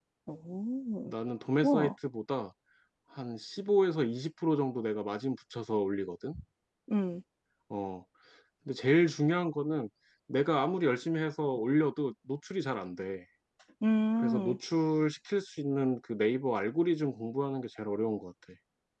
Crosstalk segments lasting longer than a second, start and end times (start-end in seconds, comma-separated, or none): none